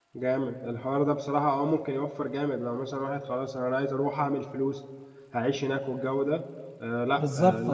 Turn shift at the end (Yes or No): No